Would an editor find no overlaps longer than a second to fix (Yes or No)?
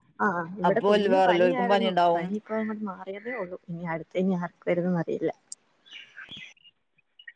No